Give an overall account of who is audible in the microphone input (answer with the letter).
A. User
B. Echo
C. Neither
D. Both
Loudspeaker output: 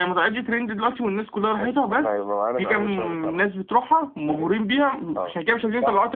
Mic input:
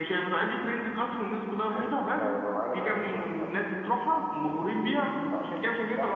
B